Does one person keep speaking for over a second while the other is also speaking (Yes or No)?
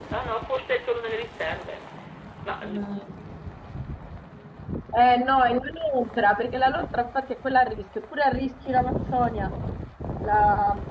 No